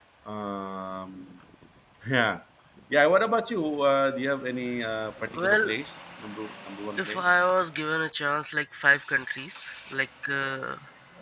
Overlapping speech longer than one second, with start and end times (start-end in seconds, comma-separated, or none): none